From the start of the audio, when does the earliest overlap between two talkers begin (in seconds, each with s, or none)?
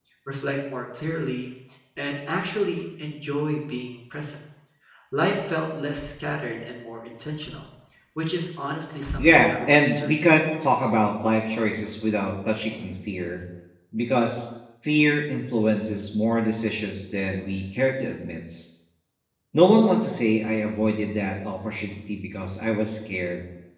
9.2 s